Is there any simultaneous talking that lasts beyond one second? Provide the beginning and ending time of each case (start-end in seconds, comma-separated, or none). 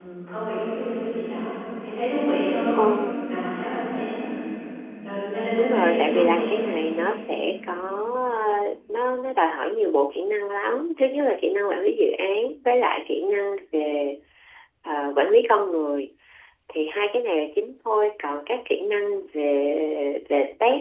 5.6-6.9